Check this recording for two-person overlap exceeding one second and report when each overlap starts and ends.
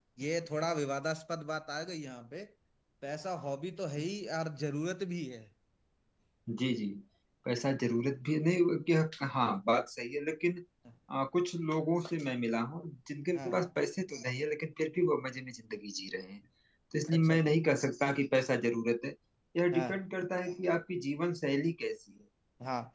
none

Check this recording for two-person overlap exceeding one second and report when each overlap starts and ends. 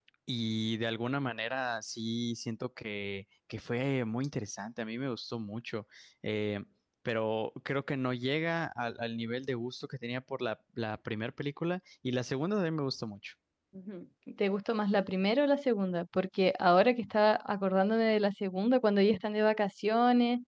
none

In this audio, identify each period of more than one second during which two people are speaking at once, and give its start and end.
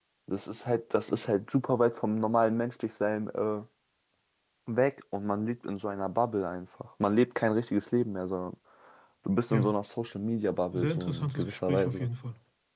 10.7-12.1

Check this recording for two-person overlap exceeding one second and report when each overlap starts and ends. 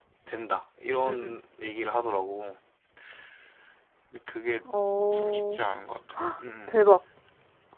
none

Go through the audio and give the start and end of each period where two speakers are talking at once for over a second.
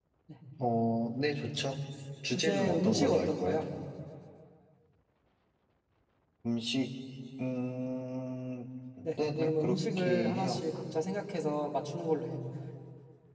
2.3-3.6, 9.2-10.6

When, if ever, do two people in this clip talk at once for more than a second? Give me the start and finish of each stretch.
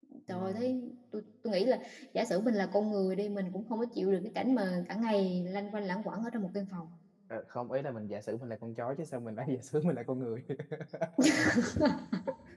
none

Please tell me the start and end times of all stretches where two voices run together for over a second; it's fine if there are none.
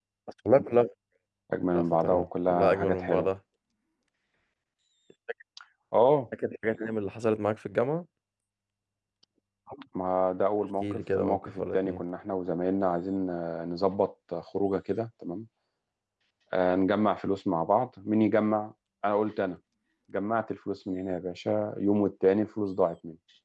1.7-3.3, 10.8-12.0

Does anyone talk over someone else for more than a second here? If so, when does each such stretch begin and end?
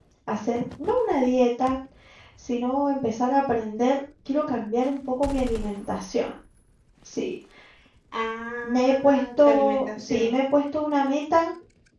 8.6-10.3

